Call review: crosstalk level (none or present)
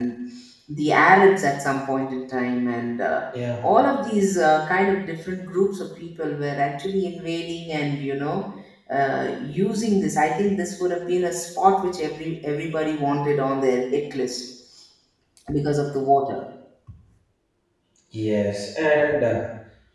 none